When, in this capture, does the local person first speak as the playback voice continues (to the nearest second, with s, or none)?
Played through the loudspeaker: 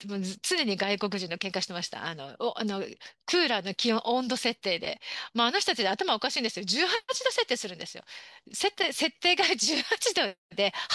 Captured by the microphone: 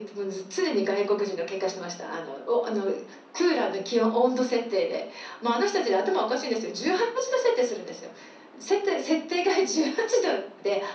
none